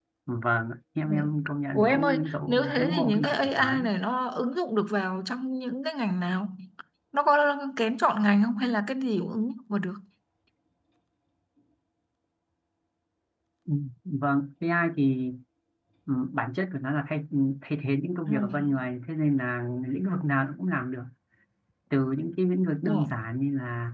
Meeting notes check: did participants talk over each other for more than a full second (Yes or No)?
Yes